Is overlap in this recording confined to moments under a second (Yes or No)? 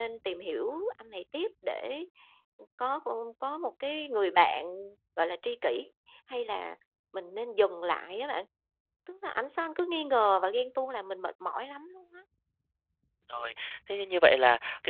Yes